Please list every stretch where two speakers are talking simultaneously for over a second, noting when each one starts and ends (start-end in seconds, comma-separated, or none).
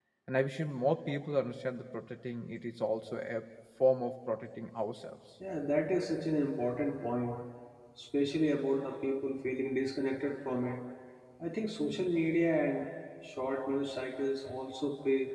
none